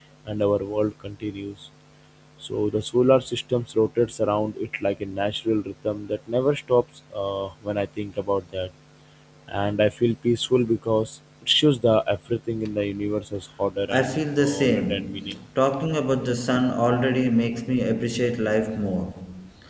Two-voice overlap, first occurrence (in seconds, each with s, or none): 13.9 s